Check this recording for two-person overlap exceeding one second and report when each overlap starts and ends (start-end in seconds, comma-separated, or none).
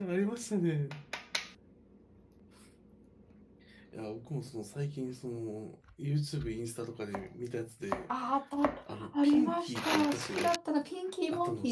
8.9-10.5